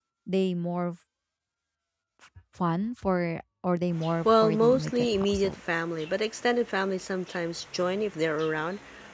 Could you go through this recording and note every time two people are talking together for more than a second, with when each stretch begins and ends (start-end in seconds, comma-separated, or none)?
4.2-5.6